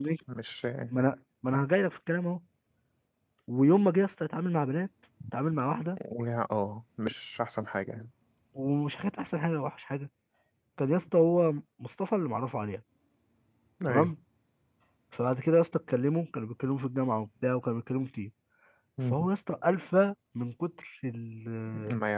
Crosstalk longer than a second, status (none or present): none